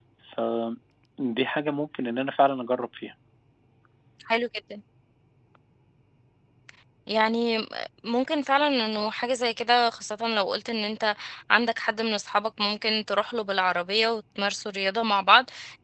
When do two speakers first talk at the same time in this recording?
none

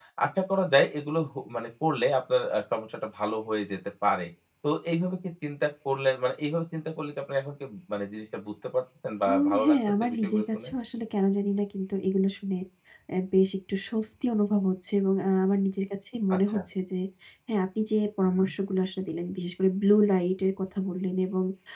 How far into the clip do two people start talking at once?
9.3 s

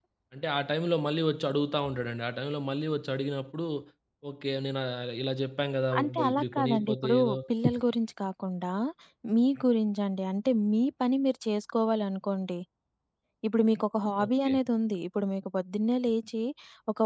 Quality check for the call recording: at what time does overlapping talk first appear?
6.0 s

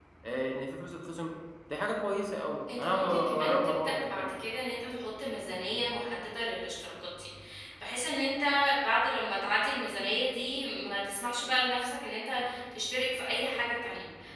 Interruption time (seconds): 2.7 s

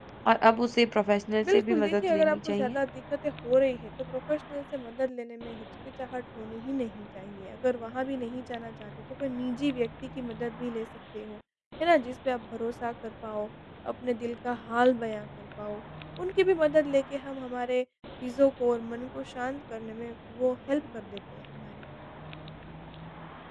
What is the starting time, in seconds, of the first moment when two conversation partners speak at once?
1.4 s

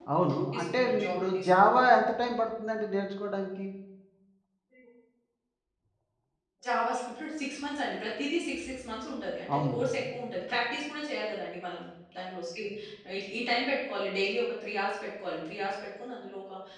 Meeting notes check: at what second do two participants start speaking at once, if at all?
0.5 s

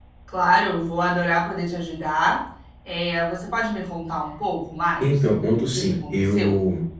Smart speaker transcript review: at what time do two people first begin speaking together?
5.0 s

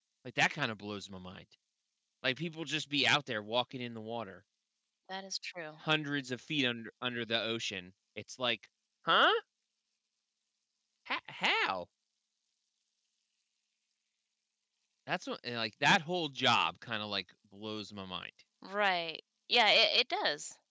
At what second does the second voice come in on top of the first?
none

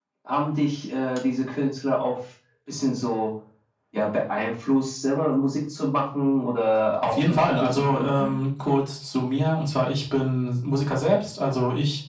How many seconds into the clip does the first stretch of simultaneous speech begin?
7.0 s

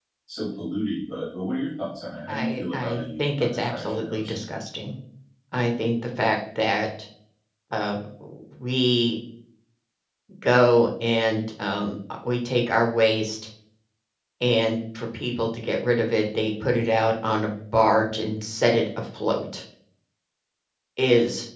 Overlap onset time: 2.3 s

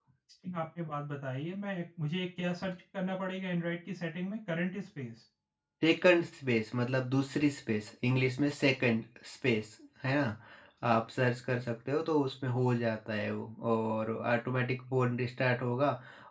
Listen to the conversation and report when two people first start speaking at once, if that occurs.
none

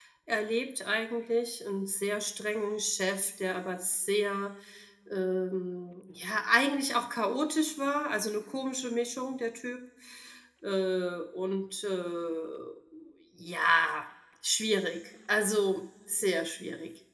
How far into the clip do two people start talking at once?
none

